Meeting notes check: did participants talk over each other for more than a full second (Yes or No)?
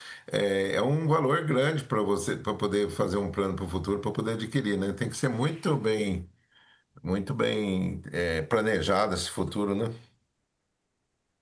No